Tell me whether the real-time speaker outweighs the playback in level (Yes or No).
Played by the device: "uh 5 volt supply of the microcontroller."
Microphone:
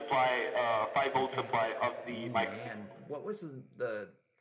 No